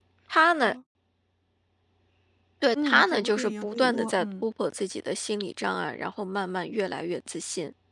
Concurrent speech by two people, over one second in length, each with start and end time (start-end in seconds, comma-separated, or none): 2.8-4.4